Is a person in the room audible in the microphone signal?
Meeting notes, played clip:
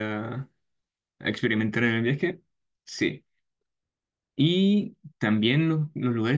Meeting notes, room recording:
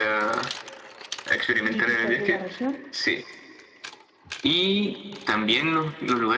Yes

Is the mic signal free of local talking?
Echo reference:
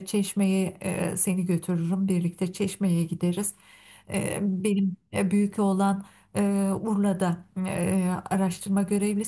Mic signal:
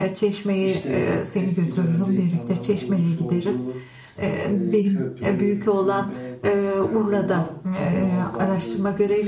No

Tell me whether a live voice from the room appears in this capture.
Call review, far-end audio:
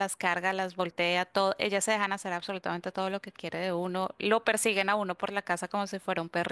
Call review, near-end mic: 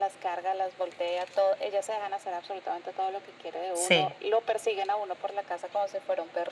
Yes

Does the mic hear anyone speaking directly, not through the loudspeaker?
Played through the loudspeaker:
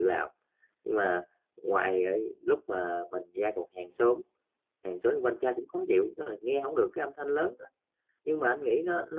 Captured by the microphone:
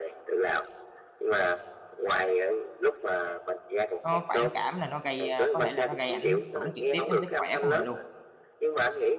Yes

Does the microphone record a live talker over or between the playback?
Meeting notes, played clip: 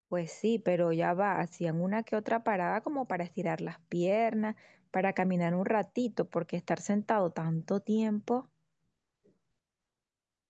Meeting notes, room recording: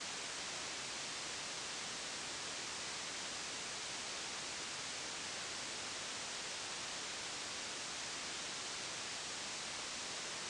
No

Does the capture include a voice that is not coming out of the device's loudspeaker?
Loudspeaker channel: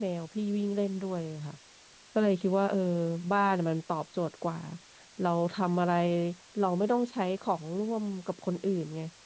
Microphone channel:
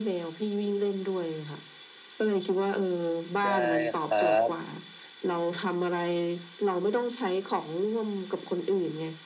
Yes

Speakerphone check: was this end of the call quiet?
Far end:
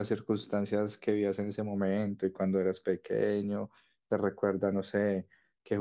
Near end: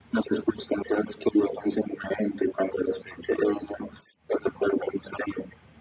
Yes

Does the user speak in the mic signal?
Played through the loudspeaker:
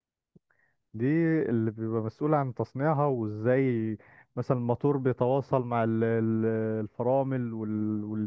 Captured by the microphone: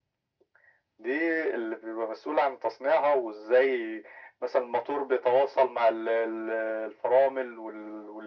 No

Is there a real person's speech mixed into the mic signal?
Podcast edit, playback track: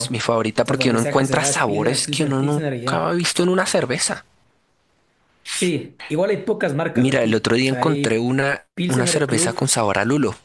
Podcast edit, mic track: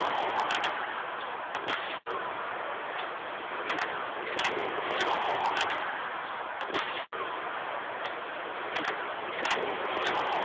No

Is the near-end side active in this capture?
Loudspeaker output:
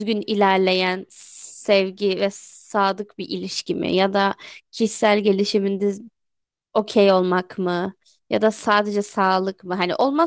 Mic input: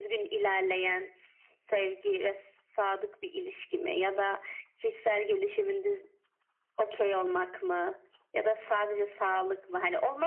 No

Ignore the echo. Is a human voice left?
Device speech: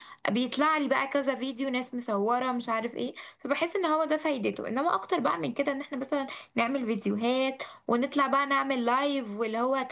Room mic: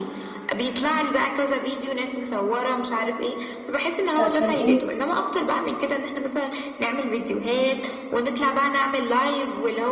Yes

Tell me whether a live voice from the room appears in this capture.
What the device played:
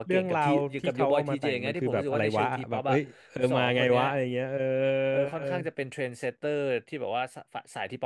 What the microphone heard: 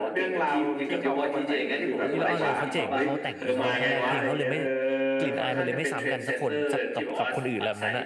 Yes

